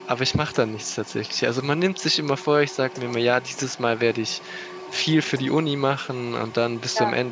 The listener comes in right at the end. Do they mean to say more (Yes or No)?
No